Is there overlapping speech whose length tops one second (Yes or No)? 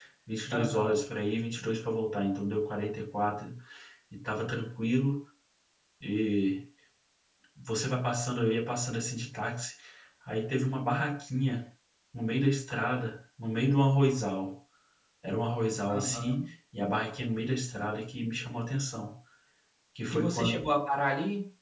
No